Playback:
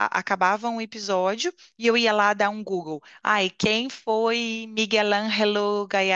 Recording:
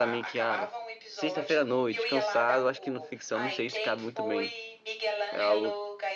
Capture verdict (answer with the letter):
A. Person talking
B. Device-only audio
A